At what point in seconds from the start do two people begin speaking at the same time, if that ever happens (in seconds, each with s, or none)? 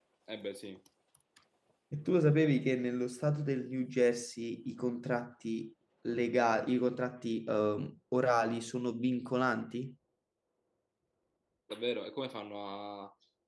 none